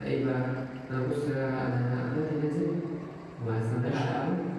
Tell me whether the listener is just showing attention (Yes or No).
Yes